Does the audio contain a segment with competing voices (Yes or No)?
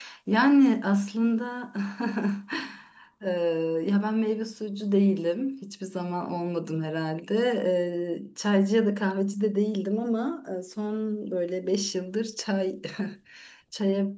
No